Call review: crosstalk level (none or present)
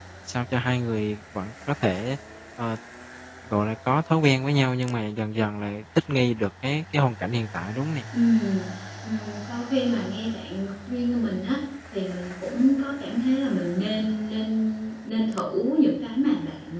none